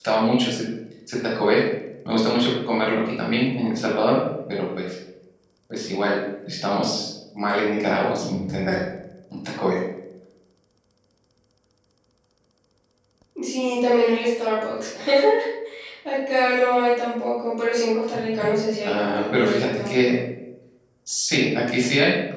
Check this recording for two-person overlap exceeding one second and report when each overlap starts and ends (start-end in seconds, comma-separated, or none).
18.8-20.1